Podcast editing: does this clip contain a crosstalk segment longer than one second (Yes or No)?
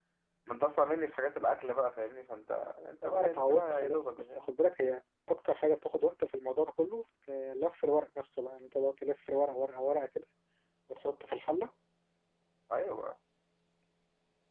Yes